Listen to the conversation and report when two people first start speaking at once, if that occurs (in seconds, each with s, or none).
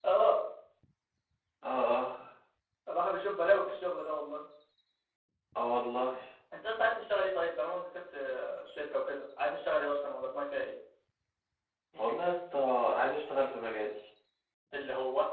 none